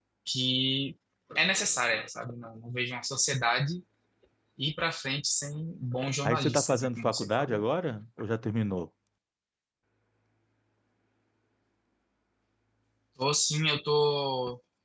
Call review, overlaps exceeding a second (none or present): present